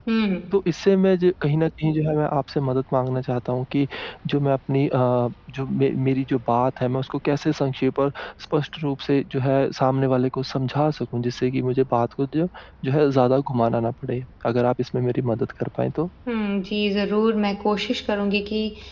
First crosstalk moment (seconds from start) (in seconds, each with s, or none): none